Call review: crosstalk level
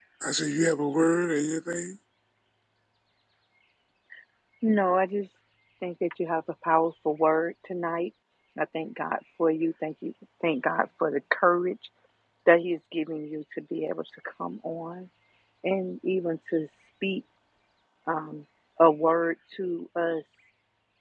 none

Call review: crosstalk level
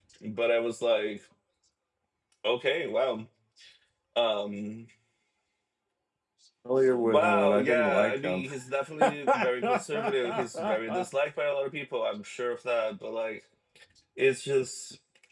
present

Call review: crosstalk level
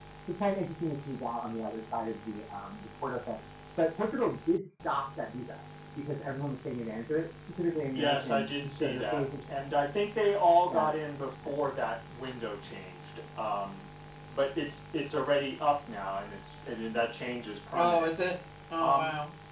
present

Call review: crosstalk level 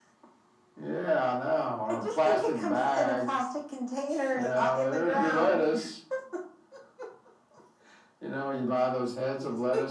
present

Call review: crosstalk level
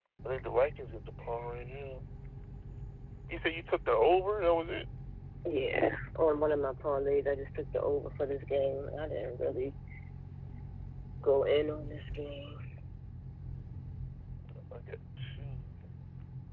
none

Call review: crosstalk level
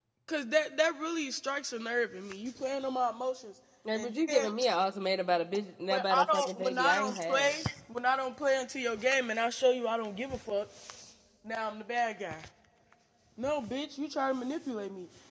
present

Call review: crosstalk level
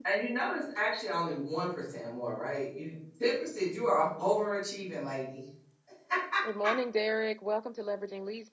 none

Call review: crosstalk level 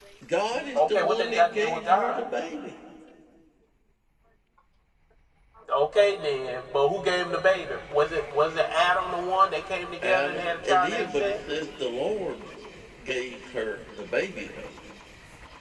present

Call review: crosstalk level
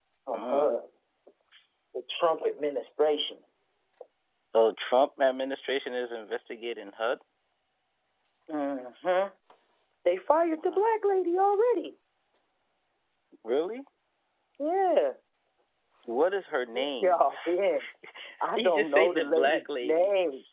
present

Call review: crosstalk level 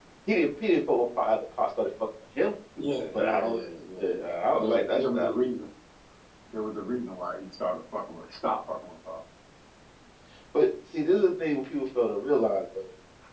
present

